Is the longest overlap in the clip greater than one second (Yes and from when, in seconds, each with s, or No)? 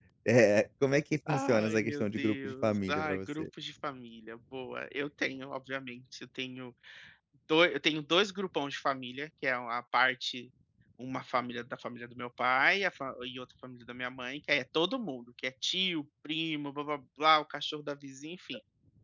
Yes, from 1.3 s